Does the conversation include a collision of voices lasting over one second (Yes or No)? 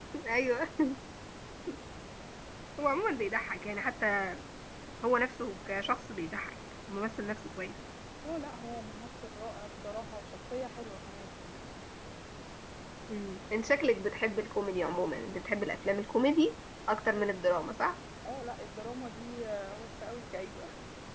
No